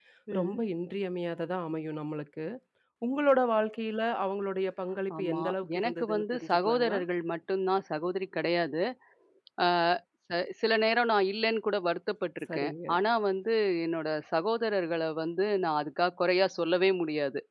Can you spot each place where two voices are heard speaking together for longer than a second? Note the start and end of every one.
5.2-7.0

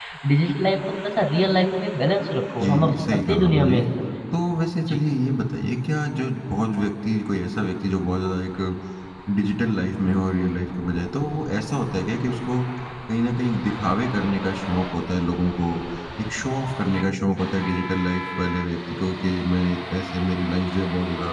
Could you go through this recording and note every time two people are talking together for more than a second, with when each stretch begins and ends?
2.6-3.8

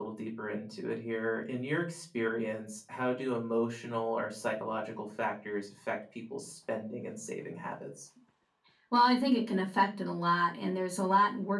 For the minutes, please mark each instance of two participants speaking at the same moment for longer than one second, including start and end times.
none

